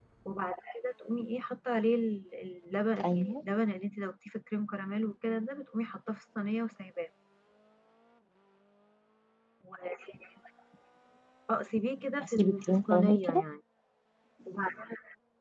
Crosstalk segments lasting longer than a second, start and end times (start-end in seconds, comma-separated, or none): 12.2-13.4